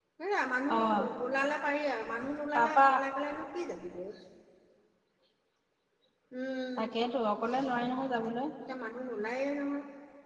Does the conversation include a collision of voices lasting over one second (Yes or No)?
No